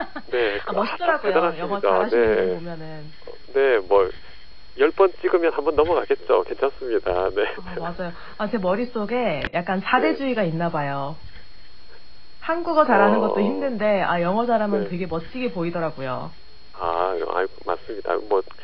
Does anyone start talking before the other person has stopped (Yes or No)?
Yes